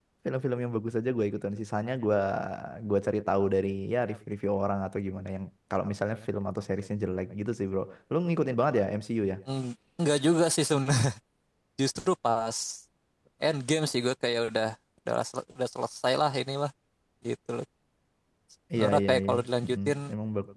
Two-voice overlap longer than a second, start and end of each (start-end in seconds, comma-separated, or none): 18.8-20.0